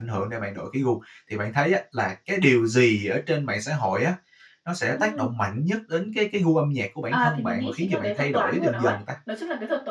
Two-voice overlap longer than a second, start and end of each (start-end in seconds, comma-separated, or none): 7.1-9.0